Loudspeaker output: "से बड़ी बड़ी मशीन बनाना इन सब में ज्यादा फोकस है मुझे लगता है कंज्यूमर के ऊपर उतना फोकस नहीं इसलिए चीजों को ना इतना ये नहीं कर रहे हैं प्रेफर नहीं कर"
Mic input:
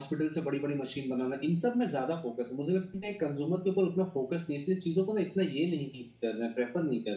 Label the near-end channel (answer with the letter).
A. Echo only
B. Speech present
A